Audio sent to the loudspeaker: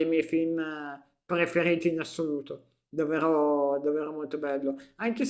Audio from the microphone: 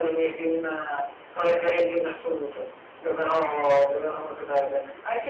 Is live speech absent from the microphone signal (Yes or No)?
Yes